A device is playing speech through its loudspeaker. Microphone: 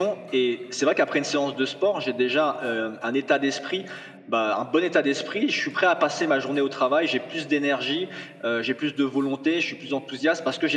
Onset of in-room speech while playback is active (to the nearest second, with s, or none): none